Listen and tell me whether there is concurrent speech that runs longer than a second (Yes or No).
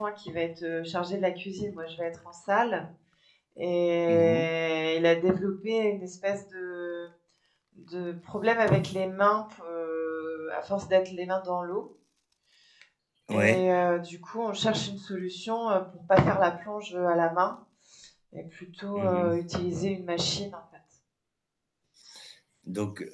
No